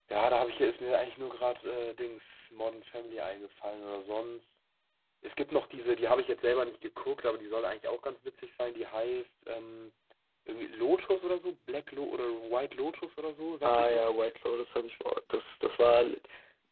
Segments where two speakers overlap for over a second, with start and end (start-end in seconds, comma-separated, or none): none